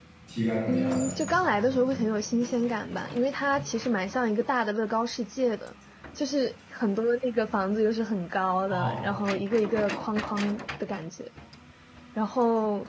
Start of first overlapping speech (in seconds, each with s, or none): 0.7 s